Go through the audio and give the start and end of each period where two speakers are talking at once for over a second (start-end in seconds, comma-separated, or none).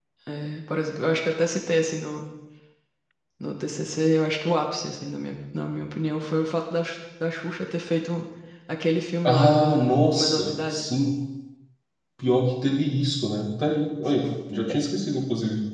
9.2-10.9